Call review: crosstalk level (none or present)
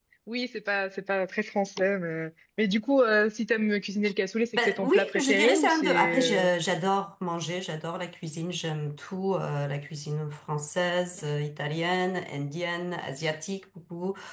present